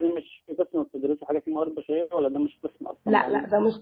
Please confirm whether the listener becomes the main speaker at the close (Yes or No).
Yes